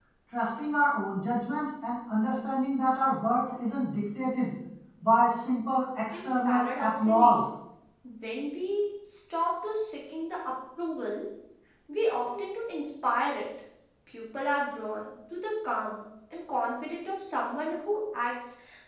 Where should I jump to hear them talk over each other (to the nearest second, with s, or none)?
6 s